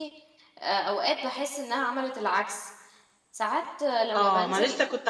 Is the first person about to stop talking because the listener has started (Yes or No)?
Yes